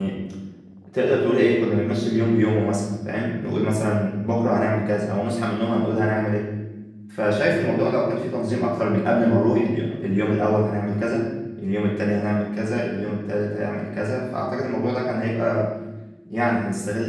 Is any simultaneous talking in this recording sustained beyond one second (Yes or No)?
No